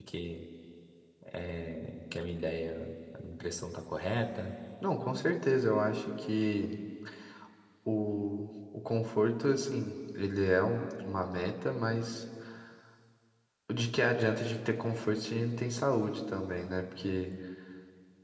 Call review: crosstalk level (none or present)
none